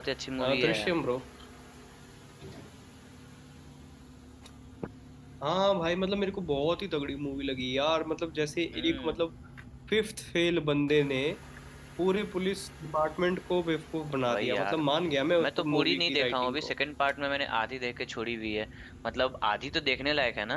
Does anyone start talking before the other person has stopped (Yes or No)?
Yes